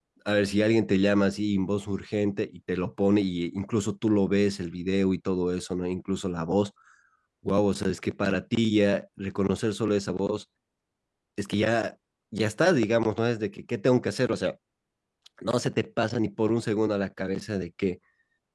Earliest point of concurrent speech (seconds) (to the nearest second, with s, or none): none